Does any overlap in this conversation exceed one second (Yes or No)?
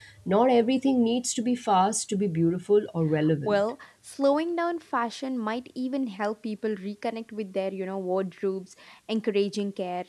No